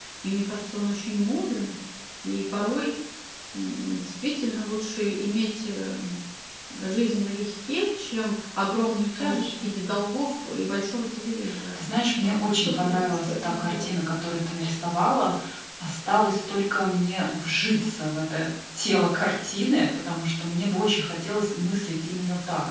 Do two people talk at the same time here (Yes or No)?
Yes